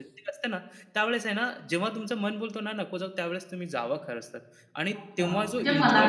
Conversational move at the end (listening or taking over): taking over